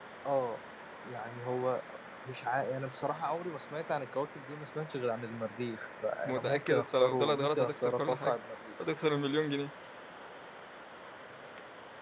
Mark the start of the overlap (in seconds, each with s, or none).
6.2 s